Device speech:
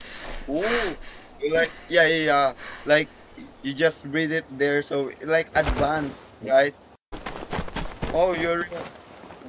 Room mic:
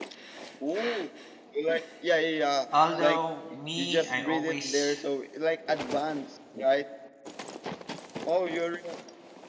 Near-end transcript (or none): Although me, I always